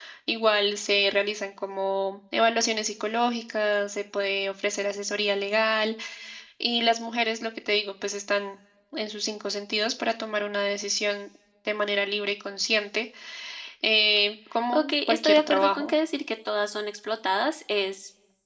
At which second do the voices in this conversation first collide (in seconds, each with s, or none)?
14.7 s